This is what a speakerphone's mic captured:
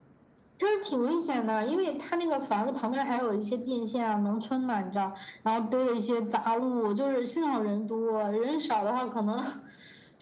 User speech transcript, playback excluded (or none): none